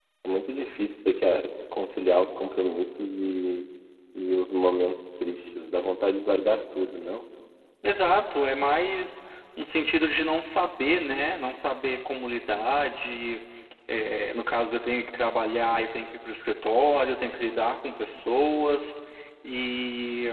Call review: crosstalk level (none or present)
none